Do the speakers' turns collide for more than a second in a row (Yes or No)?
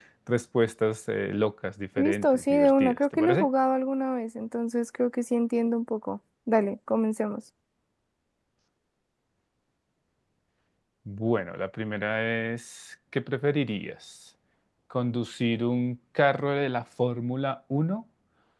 Yes